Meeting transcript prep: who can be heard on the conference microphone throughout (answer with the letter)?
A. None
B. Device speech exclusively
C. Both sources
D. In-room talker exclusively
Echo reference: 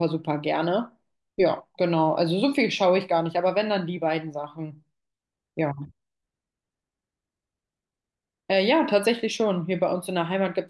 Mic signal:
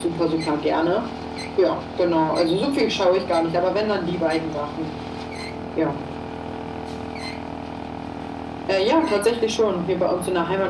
B